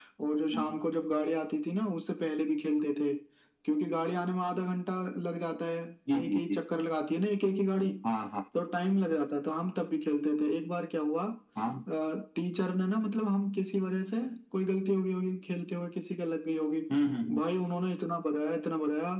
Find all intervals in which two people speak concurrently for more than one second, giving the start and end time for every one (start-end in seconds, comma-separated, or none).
none